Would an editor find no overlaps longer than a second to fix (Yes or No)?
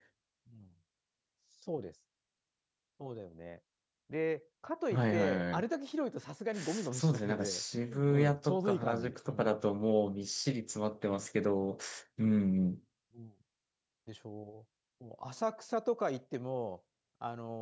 No